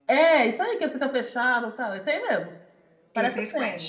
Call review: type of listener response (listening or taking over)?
taking over